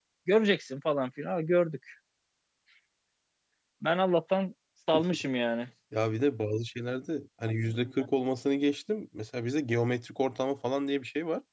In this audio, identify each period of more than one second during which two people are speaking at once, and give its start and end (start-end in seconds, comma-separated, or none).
none